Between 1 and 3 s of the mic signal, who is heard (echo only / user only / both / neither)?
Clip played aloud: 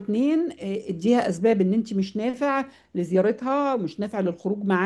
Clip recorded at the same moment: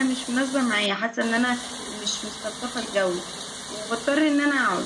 user only